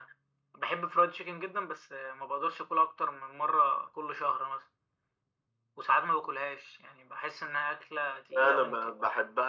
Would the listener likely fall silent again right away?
No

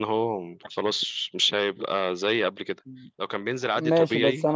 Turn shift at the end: Yes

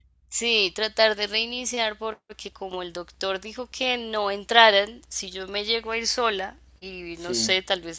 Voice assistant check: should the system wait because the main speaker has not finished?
Yes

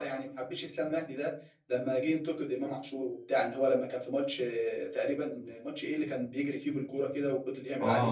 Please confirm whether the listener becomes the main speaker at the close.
Yes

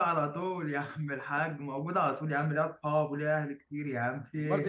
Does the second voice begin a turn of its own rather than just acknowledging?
Yes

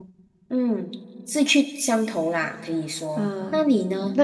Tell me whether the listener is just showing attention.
No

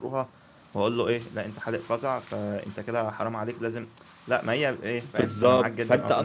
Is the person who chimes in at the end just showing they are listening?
No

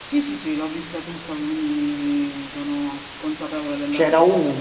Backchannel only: No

